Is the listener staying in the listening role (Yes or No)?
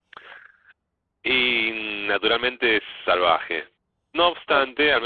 Yes